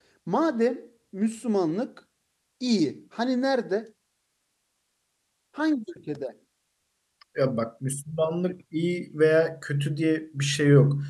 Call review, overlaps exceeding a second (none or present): none